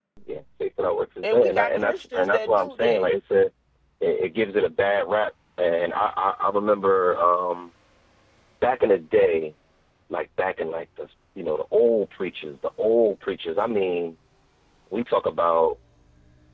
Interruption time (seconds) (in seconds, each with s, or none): 1.2 s